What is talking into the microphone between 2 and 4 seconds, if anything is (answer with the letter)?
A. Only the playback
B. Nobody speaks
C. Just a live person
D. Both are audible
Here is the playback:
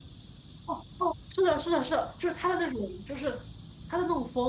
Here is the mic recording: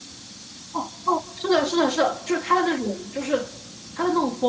A